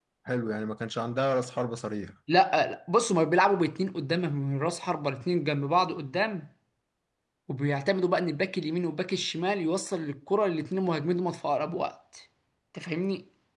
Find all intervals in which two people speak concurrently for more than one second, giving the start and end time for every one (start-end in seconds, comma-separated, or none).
none